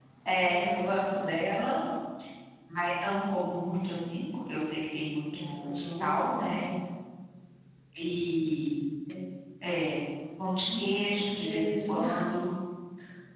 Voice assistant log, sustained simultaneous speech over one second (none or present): present